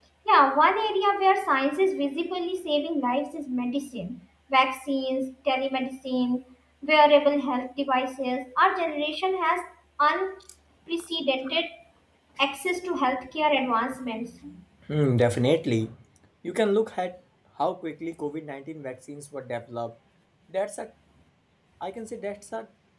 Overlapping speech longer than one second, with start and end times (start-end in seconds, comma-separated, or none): none